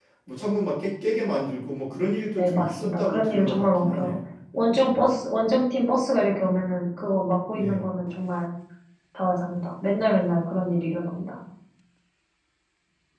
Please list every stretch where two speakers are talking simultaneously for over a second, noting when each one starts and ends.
2.4-4.1

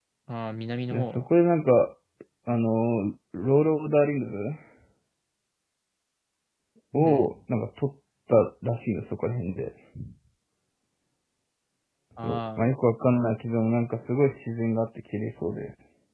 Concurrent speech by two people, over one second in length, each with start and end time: none

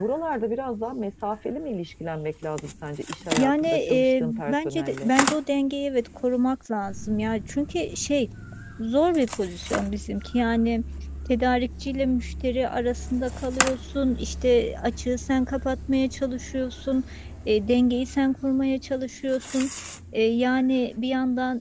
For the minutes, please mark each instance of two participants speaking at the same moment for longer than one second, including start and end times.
3.4-5.1

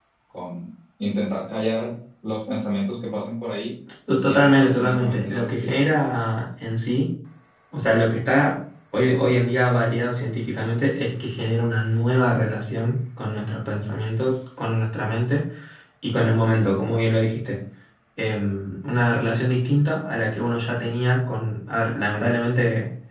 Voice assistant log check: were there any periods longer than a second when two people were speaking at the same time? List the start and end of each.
4.2-5.9

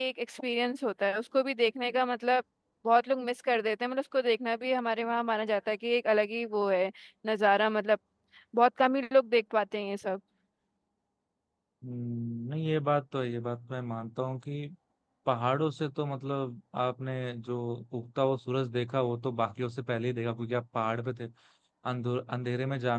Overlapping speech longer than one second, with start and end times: none

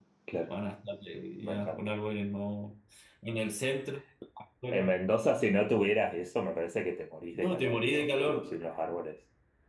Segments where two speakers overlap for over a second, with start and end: 7.4-8.6

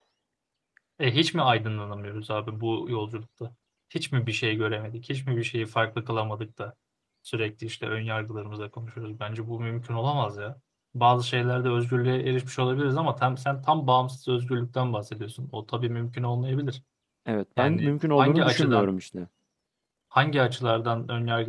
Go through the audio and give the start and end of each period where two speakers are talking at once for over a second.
17.6-18.9

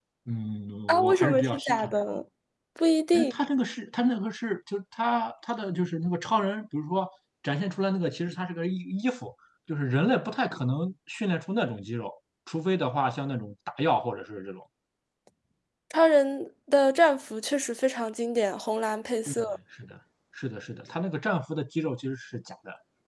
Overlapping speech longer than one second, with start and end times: 0.9-2.2

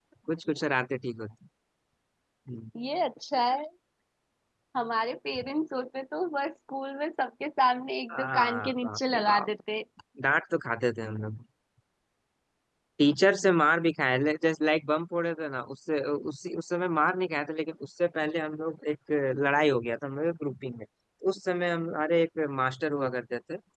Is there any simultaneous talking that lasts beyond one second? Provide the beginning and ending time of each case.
8.1-9.5

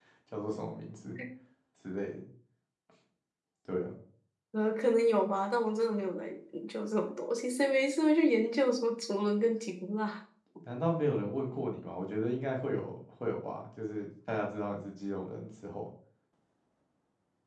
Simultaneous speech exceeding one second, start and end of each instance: none

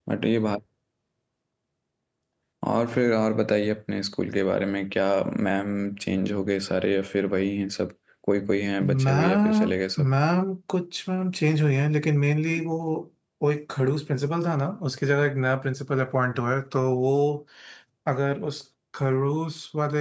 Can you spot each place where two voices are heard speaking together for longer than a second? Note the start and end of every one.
8.8-10.1

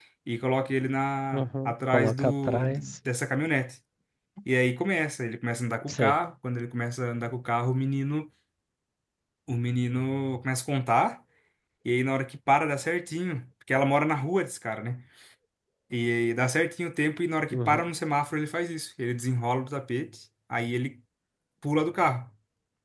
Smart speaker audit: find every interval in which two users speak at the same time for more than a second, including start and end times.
1.3-2.7

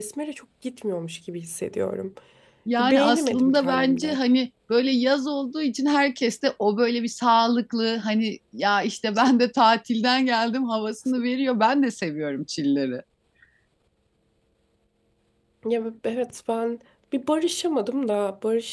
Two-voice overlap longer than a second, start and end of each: 2.8-4.2

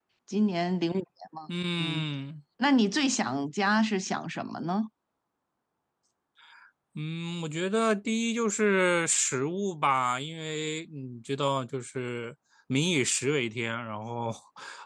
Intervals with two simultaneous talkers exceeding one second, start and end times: none

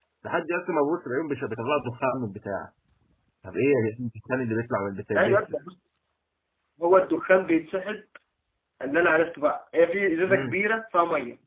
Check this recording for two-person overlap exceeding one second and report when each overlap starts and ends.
none

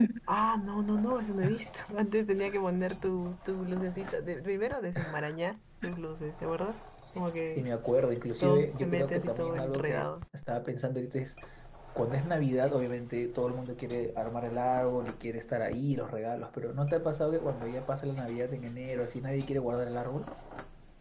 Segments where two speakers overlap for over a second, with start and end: 8.4-10.1

